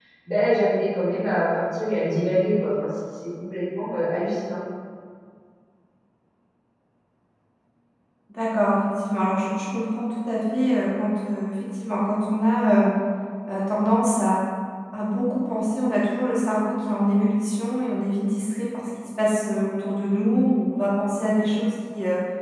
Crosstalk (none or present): none